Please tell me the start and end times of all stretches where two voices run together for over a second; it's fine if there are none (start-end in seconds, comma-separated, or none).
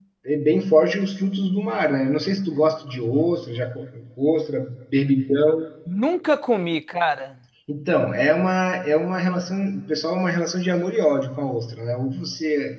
none